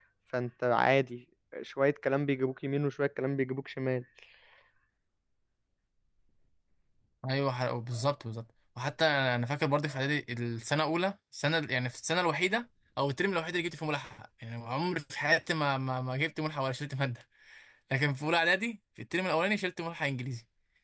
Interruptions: none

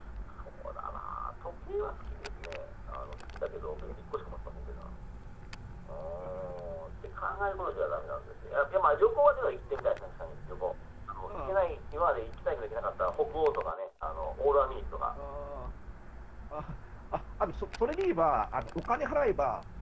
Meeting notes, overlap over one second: none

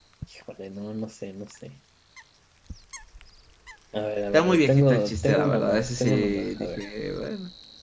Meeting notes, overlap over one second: present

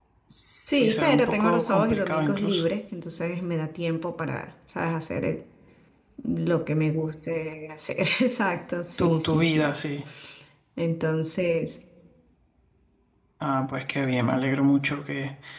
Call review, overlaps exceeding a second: present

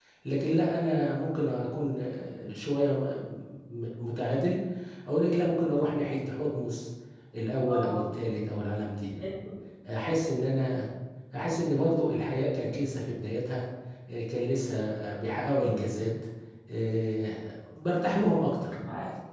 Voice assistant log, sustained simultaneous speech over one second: none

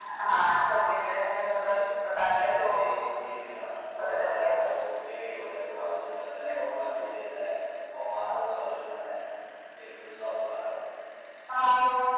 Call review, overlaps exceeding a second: none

